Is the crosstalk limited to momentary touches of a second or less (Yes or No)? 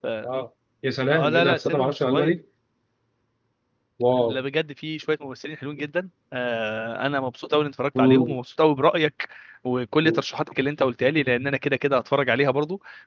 No